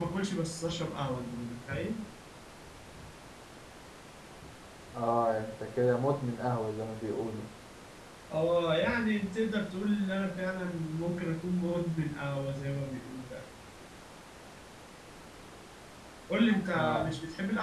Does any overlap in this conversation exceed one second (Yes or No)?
No